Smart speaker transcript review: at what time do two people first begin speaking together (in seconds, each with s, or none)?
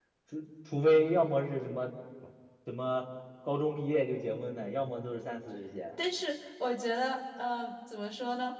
none